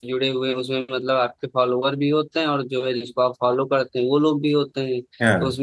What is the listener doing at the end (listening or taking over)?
listening